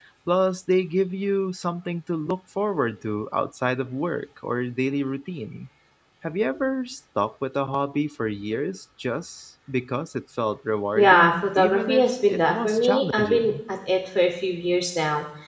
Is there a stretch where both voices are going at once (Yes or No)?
Yes